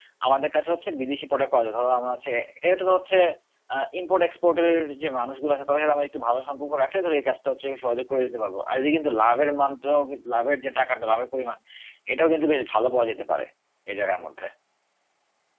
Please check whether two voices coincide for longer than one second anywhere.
No

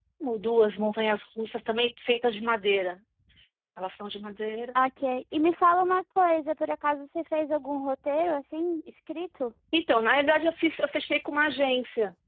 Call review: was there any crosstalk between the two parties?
No

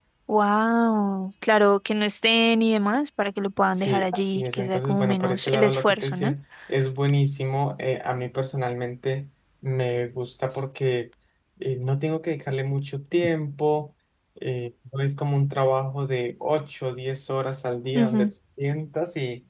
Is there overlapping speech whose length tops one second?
Yes, from 3.7 s

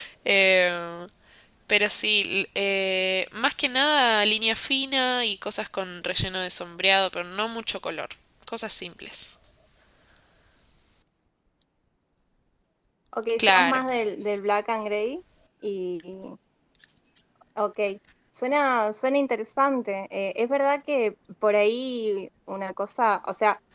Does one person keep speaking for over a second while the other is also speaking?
No

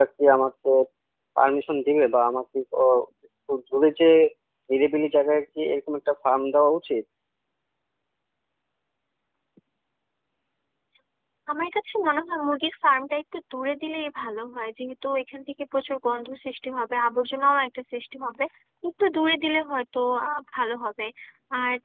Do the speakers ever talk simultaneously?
No

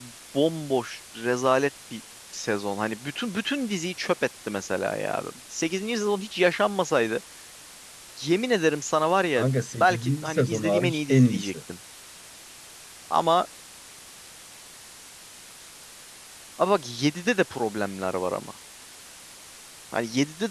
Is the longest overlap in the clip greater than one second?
Yes, from 9.8 s

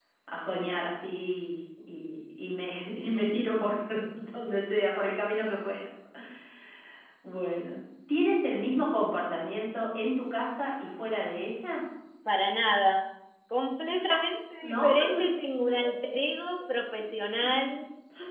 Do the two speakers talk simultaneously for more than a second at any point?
No

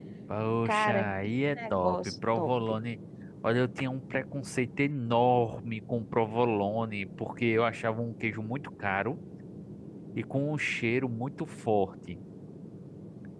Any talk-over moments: Yes, from 0.7 s

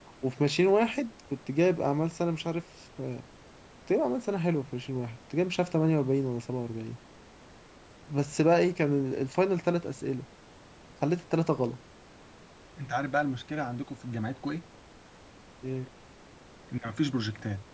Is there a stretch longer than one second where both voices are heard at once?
No

